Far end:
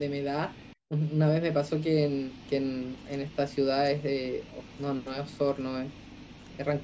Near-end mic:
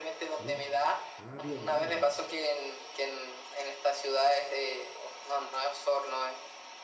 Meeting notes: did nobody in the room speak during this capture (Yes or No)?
No